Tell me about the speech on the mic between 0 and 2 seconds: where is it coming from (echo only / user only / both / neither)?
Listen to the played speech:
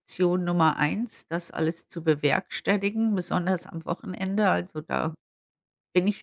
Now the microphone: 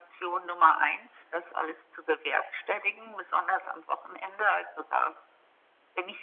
echo only